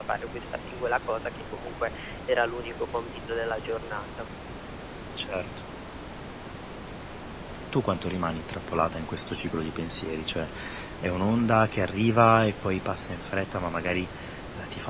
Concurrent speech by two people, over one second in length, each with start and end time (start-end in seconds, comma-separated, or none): none